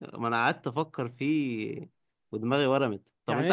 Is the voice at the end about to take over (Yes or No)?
No